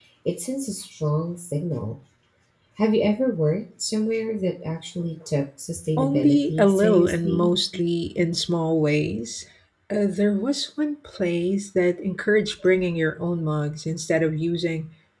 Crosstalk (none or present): present